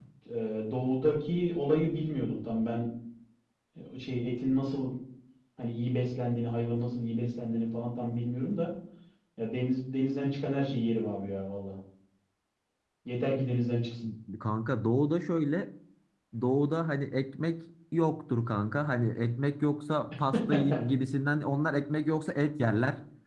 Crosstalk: none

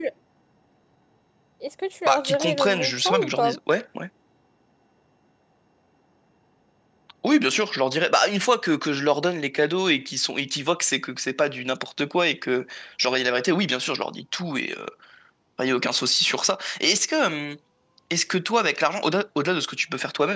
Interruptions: present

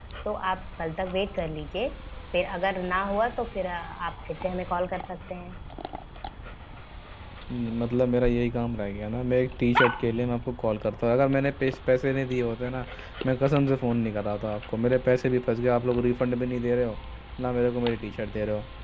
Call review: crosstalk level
none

